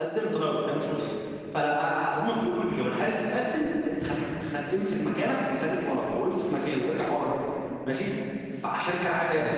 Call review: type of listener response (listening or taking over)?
listening